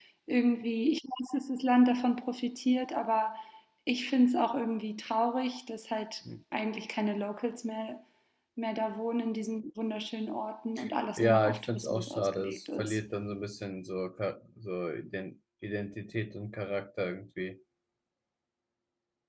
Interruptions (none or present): present